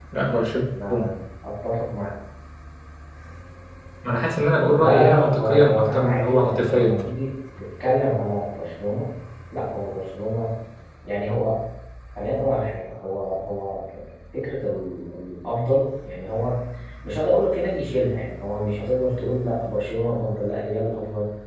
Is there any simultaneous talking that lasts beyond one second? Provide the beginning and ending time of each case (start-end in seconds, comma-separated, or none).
4.7-7.0